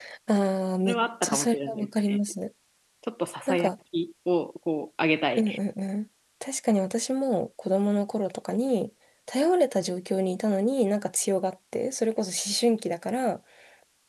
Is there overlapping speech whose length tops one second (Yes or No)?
Yes